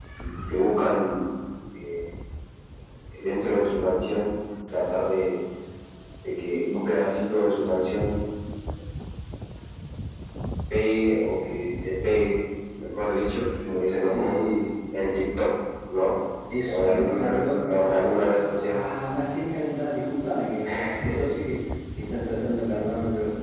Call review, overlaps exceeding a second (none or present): present